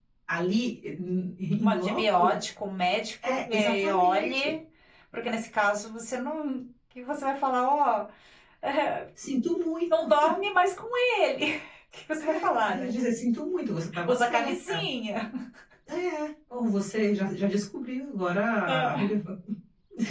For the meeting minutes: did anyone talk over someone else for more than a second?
Yes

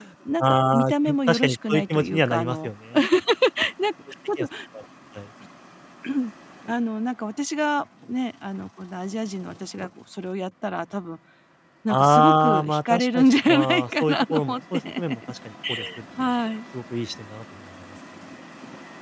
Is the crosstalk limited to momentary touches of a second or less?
No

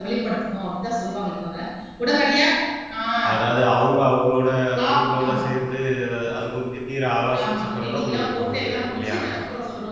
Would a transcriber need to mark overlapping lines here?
Yes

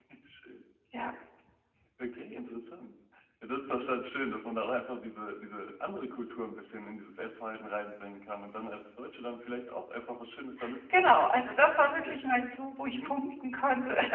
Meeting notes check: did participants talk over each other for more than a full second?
No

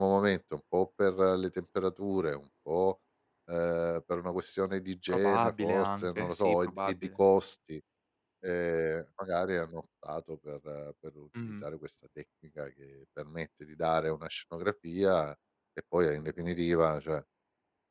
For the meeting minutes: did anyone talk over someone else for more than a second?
Yes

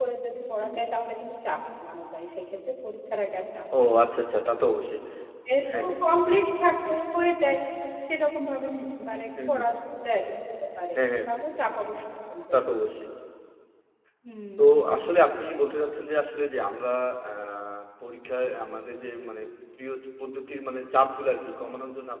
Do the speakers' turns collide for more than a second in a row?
No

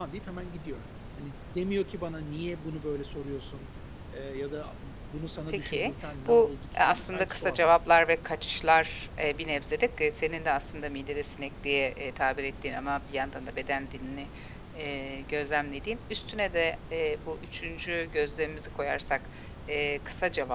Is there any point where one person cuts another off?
Yes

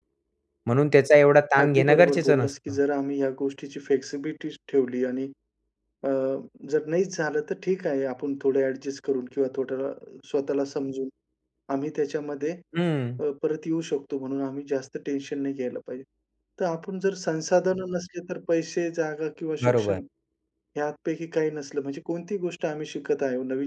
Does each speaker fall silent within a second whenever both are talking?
No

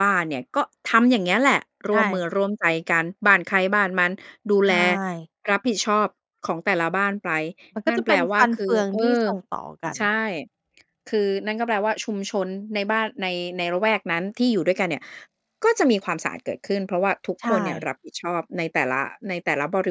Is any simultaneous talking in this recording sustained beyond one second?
Yes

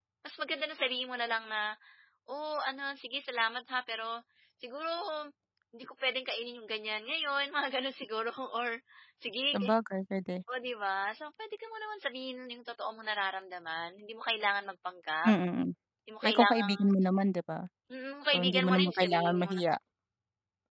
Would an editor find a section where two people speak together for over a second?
Yes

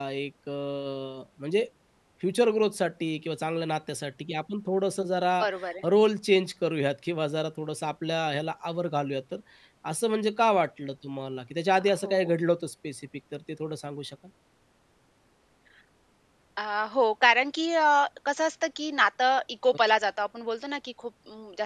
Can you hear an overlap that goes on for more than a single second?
No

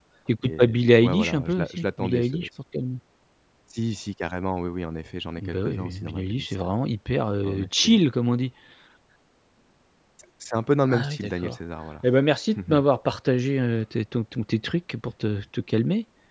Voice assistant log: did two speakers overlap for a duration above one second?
Yes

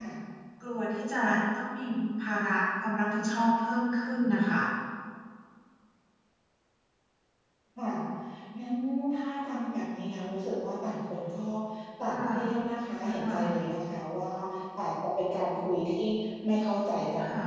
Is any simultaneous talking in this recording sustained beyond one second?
No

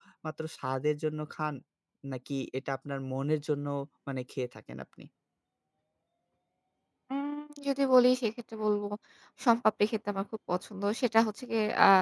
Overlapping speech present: No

